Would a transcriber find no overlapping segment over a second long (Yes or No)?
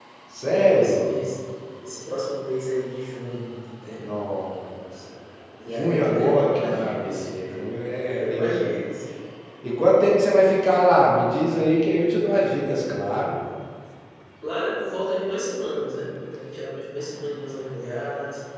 No